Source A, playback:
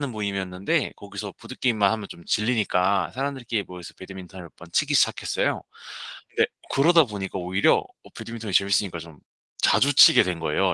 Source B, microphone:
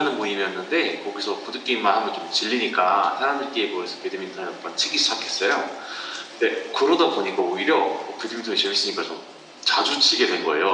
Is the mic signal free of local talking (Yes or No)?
Yes